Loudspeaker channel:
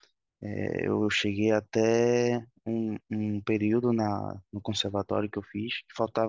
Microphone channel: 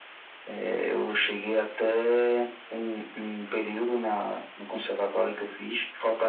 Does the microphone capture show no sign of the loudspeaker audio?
No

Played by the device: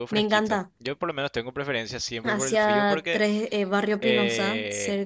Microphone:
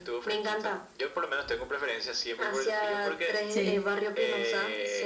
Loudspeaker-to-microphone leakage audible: Yes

